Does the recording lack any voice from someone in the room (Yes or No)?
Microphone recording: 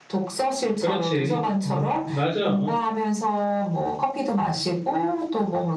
No